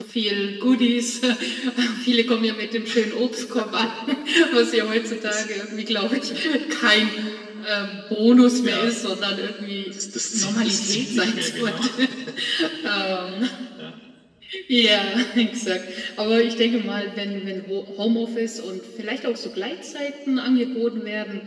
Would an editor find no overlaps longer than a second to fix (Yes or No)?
No